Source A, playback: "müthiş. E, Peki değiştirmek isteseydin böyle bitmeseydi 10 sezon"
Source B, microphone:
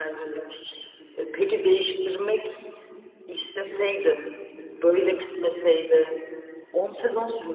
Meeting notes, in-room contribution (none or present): none